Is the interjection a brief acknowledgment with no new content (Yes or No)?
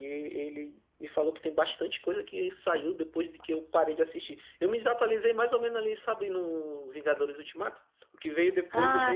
Yes